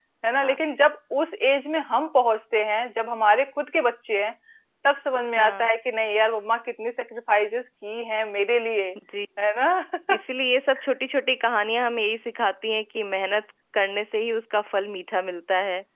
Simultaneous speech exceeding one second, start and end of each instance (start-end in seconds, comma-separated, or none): none